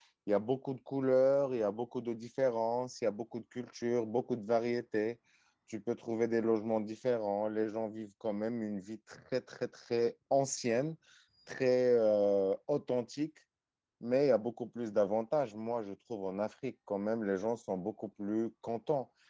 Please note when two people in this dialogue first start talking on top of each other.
none

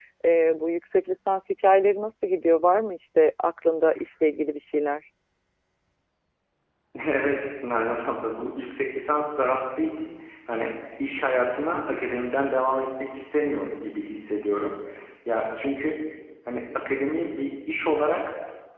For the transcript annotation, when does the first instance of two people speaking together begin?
none

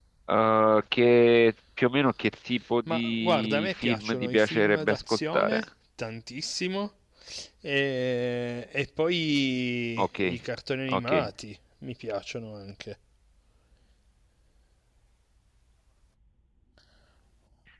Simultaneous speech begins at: 2.9 s

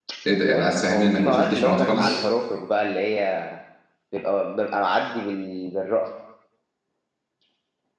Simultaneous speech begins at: 0.5 s

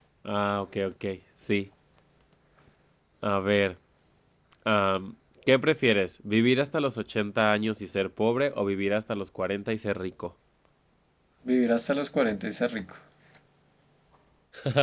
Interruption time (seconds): none

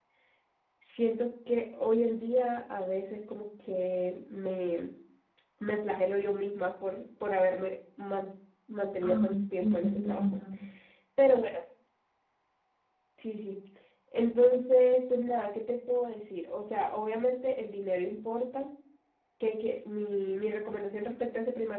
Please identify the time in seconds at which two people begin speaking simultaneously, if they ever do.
9.0 s

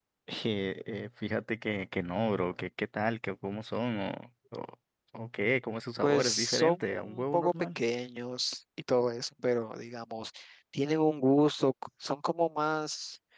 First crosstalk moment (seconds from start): 6.0 s

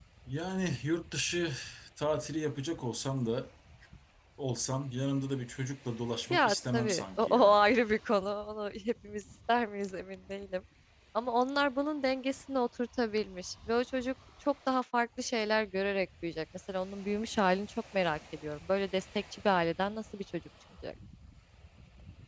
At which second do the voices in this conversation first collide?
6.3 s

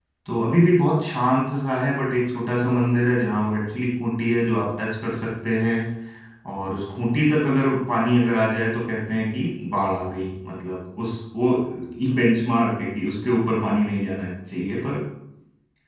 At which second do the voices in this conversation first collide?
none

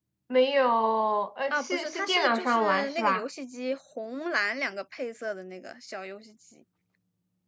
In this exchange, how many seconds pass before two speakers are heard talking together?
1.5 s

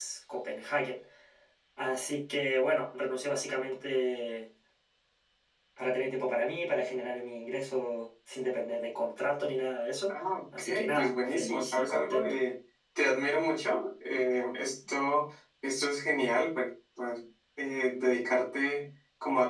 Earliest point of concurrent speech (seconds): 10.6 s

